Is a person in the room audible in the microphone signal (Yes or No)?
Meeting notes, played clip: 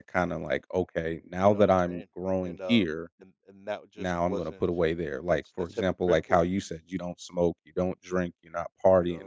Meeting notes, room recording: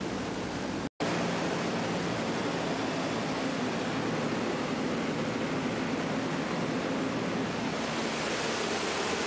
No